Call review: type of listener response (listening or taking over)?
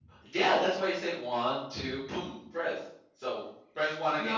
taking over